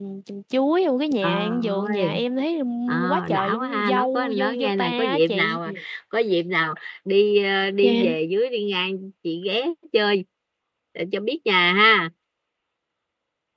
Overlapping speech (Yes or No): Yes